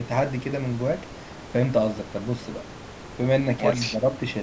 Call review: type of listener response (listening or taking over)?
listening